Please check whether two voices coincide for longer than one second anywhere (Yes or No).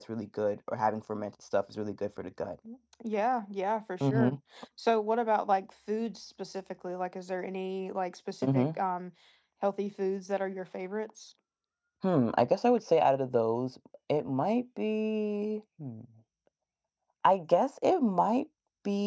No